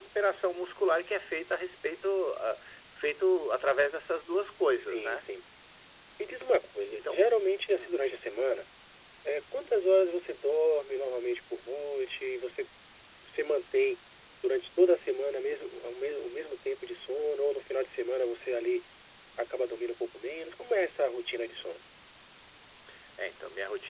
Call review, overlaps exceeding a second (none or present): none